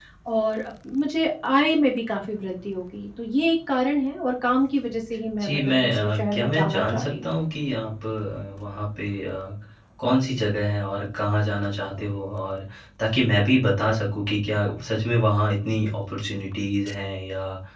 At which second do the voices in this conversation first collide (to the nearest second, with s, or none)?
5 s